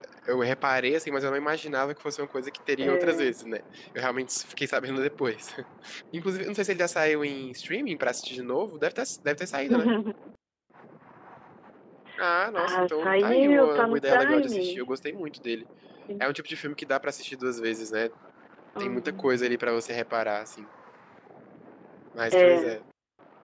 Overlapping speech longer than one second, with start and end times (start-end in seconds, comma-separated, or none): 12.6-14.8